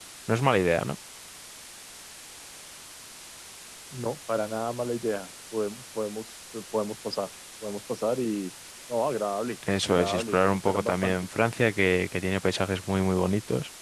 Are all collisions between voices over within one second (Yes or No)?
No